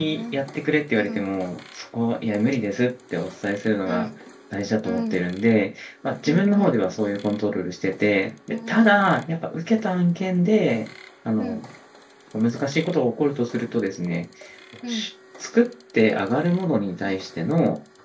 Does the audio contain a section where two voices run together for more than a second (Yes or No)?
No